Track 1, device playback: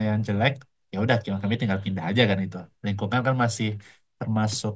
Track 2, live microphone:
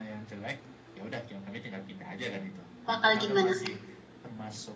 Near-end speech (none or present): present